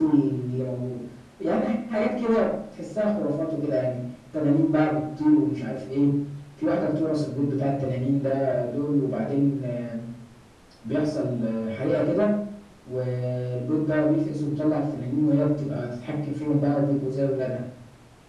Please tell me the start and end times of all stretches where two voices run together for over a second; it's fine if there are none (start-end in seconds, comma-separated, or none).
none